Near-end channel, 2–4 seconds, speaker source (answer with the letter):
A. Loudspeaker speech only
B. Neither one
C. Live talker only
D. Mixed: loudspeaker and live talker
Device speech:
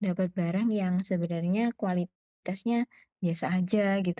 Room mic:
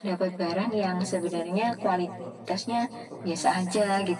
D